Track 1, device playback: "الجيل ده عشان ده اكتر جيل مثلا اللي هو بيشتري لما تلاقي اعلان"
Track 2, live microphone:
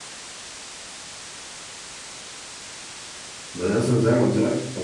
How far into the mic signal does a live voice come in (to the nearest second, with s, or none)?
4 s